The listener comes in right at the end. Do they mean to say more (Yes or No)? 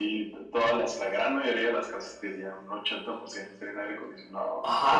Yes